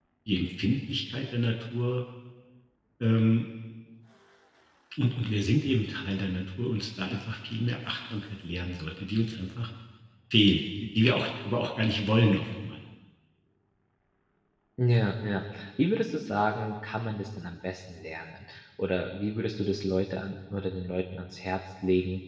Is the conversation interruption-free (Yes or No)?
Yes